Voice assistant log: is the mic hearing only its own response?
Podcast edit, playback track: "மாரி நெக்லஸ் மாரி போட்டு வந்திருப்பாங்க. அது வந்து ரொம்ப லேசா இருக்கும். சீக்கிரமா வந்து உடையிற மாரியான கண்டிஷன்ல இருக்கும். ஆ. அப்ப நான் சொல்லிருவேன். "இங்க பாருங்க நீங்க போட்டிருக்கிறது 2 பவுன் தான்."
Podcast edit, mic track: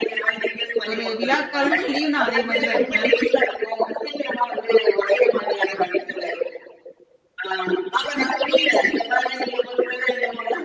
No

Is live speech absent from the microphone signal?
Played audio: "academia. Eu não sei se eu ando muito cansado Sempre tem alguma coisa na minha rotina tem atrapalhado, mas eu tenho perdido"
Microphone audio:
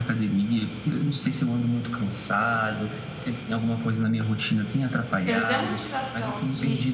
No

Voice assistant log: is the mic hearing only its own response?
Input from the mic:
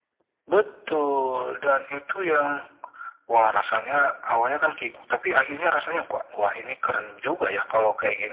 Yes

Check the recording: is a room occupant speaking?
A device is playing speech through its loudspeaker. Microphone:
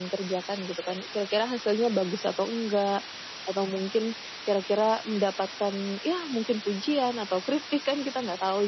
Yes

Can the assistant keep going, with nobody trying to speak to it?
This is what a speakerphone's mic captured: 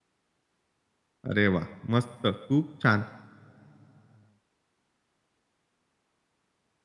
No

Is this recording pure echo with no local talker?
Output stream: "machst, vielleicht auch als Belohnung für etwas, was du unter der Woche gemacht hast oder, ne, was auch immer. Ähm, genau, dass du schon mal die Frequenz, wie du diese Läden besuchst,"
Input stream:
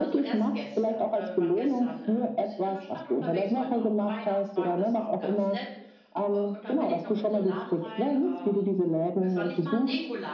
No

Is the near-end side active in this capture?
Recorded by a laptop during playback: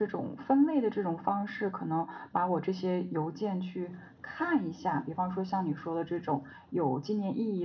No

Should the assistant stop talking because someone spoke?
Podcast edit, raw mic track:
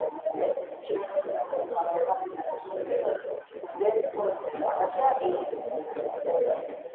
Yes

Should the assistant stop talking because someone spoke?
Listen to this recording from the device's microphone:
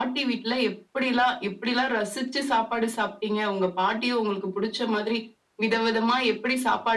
No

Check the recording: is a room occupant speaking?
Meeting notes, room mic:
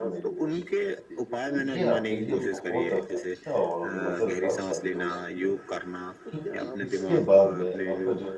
Yes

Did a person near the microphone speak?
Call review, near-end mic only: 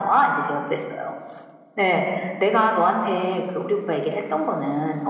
No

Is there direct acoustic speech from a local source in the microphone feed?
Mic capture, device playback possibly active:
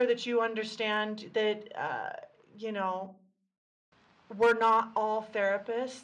No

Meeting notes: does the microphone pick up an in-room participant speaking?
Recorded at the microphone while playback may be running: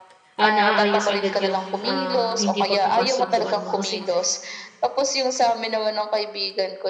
Yes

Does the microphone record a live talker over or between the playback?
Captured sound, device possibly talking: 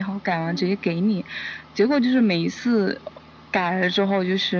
Yes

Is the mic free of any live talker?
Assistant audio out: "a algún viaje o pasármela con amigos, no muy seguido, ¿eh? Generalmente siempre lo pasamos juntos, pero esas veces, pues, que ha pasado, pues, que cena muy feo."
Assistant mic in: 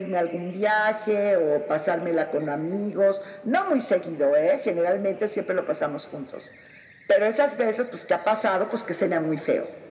Yes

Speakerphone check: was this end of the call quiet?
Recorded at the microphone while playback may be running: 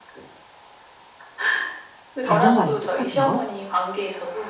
No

